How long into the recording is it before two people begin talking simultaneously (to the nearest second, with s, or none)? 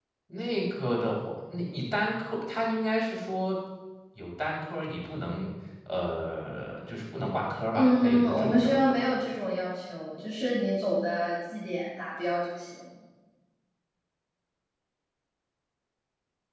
8 s